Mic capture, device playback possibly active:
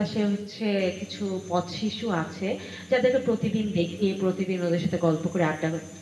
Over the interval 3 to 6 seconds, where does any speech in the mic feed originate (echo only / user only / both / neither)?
echo only